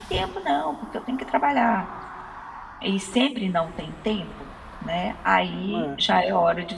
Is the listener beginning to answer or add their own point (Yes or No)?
No